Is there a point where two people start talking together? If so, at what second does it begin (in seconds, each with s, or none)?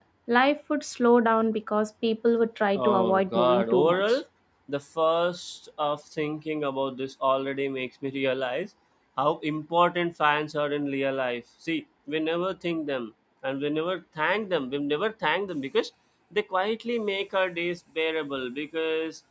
2.8 s